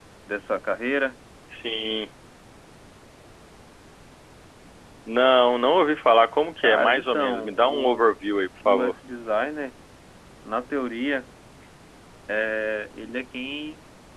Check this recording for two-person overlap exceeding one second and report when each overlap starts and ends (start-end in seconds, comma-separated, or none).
6.6-8.0